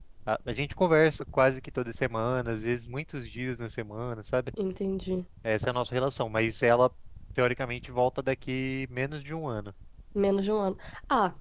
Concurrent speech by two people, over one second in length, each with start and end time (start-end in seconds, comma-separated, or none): none